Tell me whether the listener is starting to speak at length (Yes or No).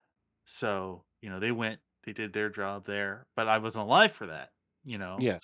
No